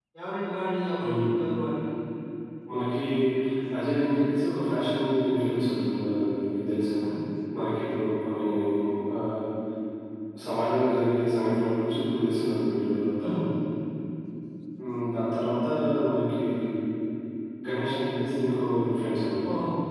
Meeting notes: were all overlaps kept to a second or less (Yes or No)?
Yes